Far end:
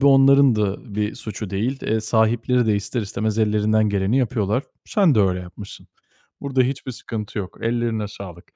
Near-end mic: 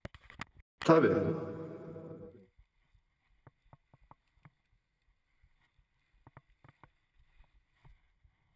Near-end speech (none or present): present